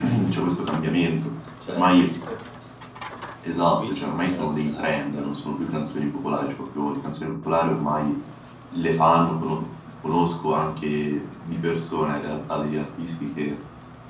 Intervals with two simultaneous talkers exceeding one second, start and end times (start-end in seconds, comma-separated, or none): 3.6-5.3